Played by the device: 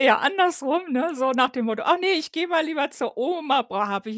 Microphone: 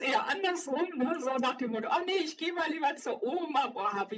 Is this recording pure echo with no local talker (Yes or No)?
Yes